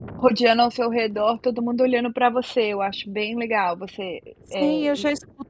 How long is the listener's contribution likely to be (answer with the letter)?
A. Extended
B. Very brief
A